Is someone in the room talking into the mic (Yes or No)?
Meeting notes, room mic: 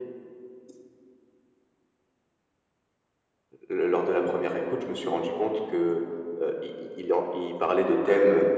No